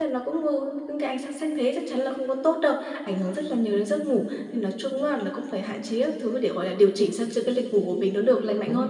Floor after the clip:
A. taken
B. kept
A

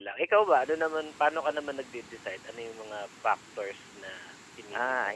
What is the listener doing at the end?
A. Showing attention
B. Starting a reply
B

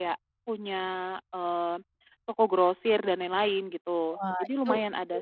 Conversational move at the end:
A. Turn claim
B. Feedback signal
A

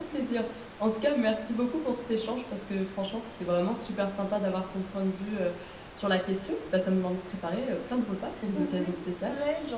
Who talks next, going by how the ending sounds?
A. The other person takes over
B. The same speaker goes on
A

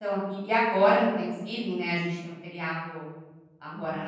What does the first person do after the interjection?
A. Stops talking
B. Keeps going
B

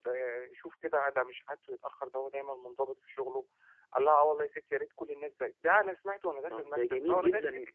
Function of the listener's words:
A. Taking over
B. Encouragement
A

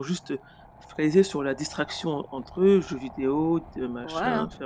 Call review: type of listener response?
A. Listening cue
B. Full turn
B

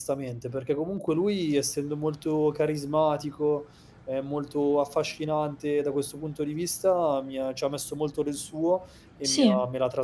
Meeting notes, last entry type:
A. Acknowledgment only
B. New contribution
A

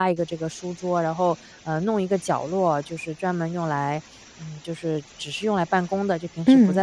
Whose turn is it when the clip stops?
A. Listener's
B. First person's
B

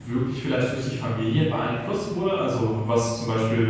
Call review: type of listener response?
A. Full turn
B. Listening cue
B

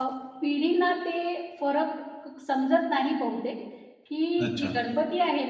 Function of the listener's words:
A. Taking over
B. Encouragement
B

